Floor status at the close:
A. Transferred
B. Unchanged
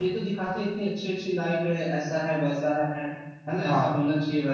B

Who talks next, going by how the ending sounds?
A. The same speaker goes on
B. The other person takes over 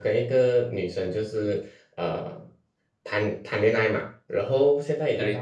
A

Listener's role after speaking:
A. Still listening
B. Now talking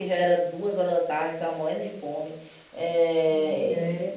A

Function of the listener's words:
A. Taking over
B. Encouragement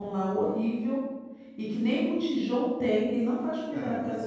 A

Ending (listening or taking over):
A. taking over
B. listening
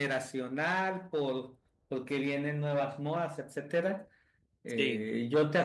B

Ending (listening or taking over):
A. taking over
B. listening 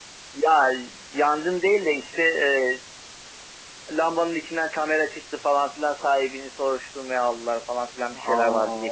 A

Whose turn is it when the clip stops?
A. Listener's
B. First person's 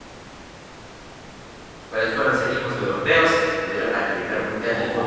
A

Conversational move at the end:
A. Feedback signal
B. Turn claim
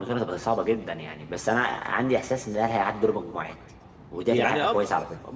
B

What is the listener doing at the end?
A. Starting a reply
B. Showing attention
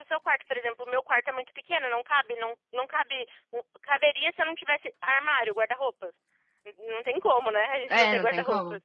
A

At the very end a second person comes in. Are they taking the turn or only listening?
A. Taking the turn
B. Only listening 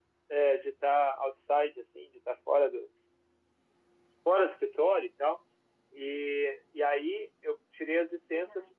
B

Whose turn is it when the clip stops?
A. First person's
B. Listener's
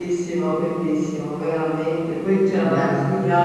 A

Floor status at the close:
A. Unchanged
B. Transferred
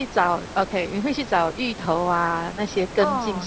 B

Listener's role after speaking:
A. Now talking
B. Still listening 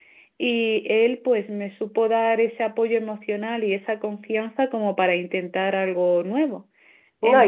A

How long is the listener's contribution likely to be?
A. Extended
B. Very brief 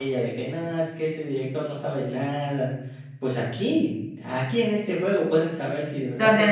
B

